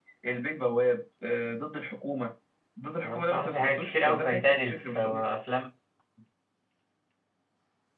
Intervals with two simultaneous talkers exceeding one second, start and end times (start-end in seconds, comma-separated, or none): 3.0-5.2